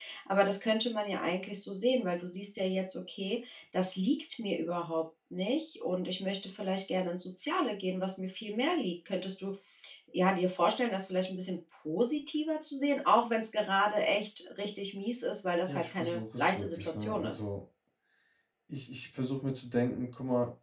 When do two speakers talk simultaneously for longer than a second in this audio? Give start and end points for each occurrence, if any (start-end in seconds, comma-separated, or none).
15.7-17.4